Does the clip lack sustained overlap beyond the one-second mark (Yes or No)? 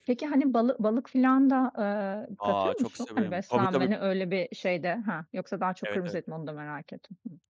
No